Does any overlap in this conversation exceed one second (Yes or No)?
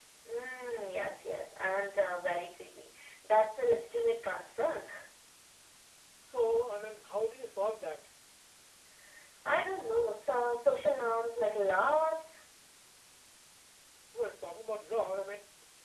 No